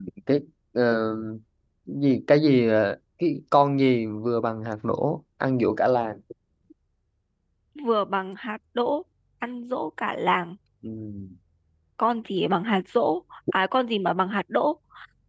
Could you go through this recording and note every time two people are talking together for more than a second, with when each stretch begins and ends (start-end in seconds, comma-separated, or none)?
none